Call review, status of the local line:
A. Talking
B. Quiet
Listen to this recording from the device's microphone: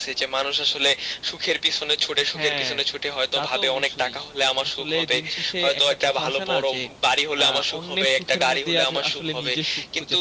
A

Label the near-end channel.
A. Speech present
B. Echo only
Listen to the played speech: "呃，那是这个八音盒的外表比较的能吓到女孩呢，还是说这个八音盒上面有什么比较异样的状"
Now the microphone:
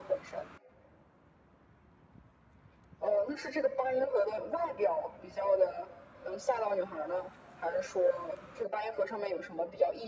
B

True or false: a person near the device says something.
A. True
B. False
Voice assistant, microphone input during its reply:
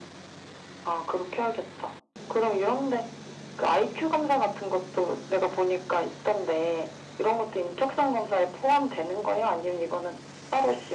B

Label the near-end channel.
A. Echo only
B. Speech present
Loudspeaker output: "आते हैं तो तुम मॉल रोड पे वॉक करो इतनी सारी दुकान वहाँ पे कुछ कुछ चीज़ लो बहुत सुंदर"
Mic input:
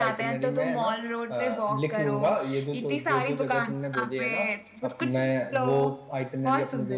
B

